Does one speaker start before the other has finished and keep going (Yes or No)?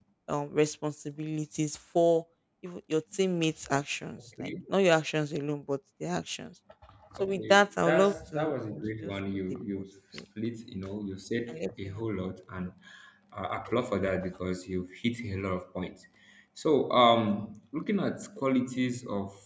Yes